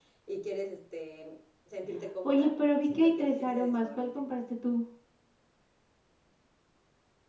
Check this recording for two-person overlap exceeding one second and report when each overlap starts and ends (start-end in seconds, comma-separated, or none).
2.2-4.1